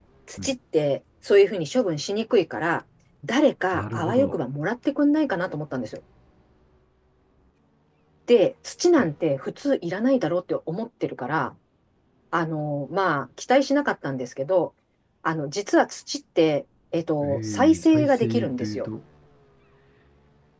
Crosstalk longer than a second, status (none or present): present